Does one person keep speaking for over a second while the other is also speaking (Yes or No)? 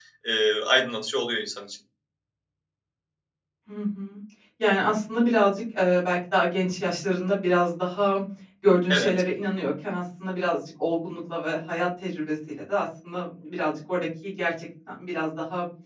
No